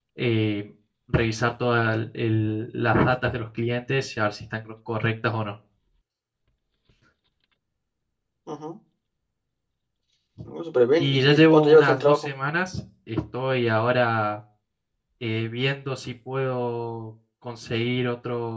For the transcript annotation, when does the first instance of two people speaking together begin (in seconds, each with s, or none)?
11.0 s